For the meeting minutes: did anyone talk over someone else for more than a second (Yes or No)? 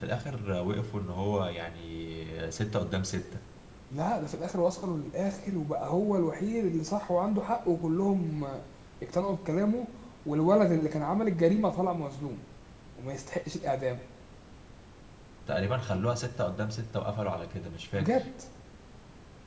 No